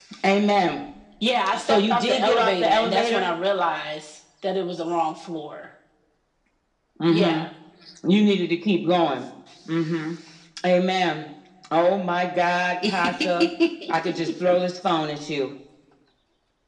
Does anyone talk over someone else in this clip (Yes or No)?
Yes